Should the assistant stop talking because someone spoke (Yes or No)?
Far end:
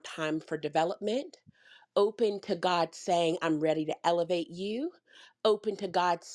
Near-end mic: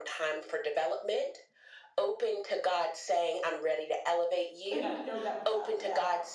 Yes